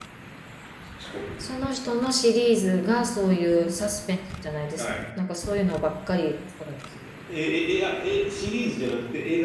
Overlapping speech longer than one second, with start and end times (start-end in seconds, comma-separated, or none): none